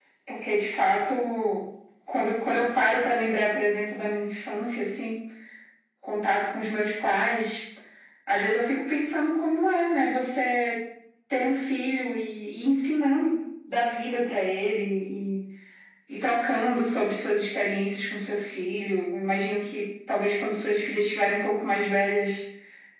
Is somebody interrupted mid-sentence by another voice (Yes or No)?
No